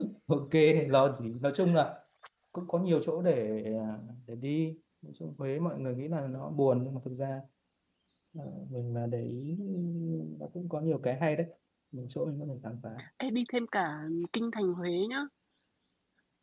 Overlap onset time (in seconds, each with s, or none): none